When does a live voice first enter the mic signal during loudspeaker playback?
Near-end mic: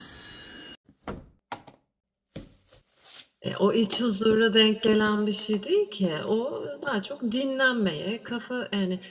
3 s

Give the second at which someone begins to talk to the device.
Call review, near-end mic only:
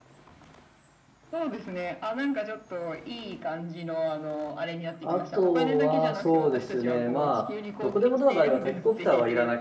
5 s

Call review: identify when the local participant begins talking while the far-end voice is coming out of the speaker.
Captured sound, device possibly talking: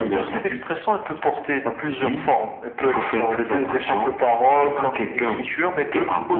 none

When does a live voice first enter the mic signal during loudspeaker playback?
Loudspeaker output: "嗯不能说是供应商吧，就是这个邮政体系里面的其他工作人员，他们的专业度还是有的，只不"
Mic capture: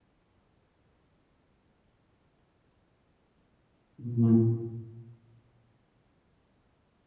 4 s

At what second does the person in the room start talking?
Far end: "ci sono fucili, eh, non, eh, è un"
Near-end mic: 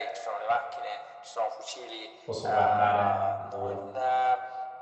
2 s

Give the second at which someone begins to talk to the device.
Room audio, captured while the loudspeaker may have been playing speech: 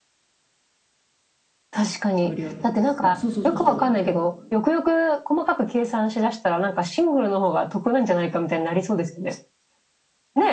2 s

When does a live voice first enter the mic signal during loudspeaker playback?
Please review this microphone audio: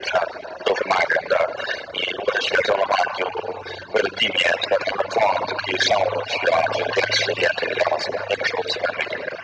none

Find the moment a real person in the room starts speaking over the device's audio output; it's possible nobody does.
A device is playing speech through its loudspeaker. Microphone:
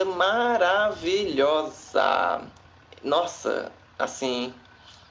none

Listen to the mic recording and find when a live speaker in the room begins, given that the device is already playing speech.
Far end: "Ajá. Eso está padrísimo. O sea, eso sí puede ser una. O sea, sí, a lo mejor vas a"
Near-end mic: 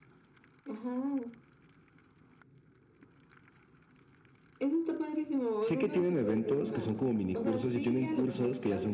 6 s

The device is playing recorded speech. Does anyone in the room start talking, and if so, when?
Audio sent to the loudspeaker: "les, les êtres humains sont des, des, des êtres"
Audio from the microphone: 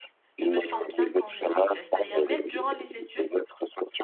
0 s

